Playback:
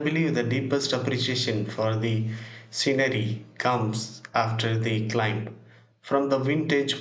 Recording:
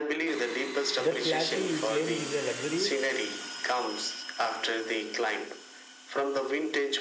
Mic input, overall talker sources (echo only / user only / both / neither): both